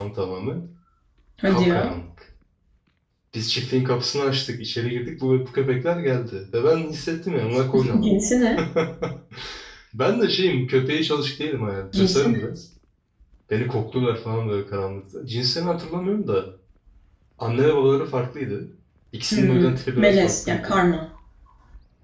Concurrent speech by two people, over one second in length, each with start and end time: 19.3-20.7

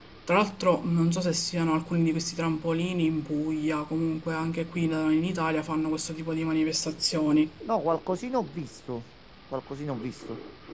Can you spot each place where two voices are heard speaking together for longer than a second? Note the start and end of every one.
none

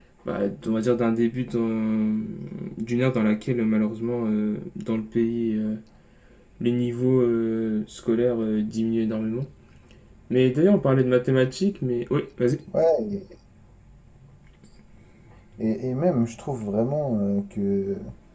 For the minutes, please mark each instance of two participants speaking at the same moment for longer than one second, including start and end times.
none

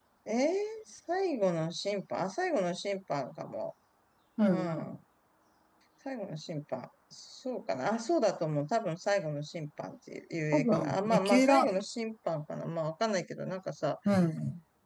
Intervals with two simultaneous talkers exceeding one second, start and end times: 10.5-11.7

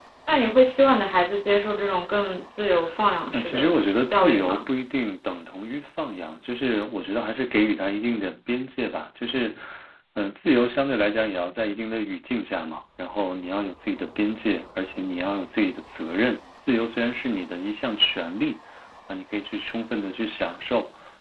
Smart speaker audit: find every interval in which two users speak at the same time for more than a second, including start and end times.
3.3-4.7

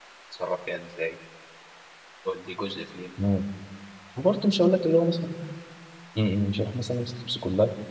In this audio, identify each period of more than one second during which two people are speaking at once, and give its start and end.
none

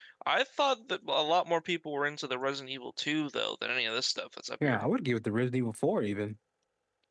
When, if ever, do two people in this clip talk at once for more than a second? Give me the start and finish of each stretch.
none

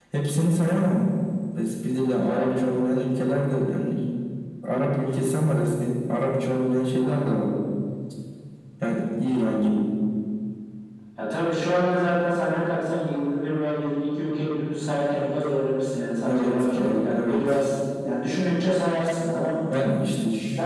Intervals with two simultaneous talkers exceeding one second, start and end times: 16.3-17.6

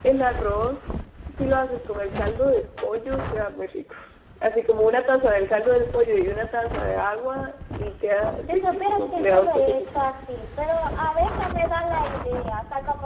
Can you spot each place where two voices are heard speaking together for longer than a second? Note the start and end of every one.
8.5-10.0

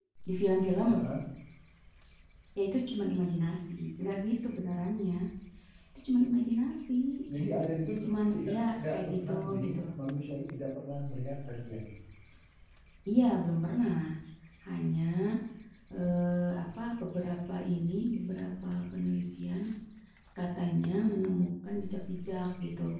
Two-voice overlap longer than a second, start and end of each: 8.4-9.8

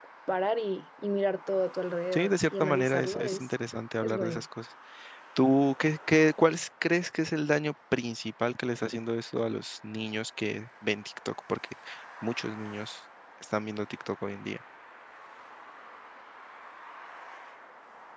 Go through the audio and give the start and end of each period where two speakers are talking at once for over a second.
2.1-3.5

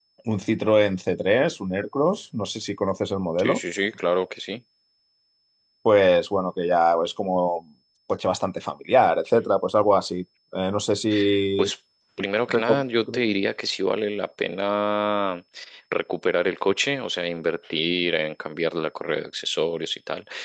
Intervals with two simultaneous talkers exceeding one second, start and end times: none

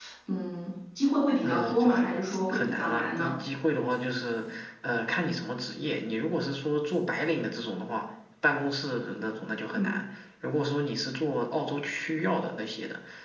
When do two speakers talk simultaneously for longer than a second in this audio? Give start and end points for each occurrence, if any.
1.4-3.4

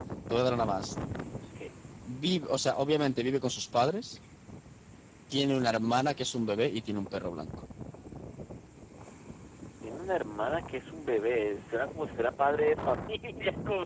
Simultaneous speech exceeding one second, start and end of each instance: none

